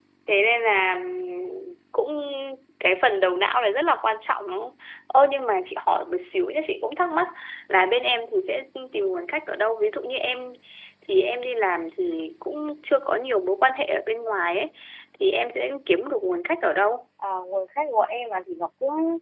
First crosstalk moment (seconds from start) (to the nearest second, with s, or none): none